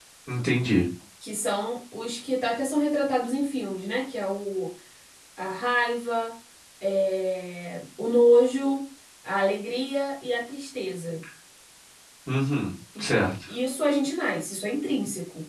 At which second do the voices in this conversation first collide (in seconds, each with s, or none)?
none